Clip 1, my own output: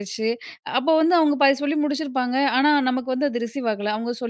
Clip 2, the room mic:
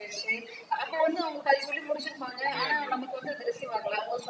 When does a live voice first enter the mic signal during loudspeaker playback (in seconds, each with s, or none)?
2.4 s